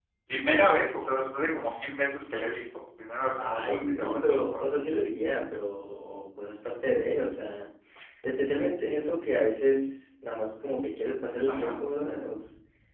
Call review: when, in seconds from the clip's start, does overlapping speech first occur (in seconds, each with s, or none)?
3.4 s